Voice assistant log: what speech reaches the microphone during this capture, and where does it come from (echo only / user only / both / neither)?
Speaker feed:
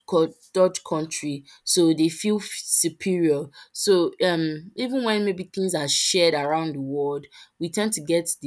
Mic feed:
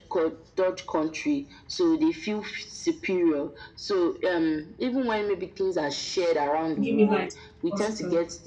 both